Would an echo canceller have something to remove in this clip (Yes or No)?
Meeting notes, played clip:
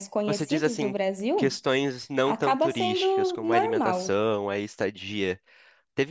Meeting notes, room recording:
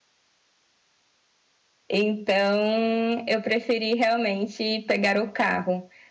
No